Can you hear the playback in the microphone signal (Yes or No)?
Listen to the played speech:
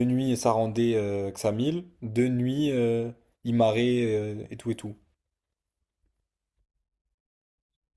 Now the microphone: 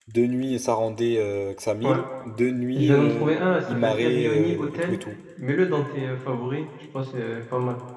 Yes